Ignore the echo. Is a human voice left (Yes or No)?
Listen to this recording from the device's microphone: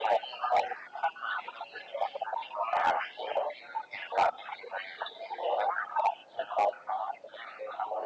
No